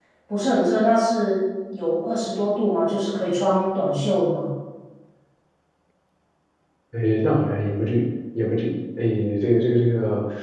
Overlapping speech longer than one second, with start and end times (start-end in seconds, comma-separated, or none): none